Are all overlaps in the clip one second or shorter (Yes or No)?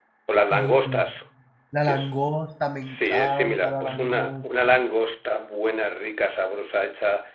No